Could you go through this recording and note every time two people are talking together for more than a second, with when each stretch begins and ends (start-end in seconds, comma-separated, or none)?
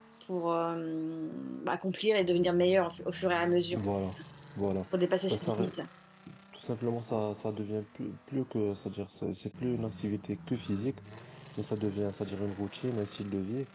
none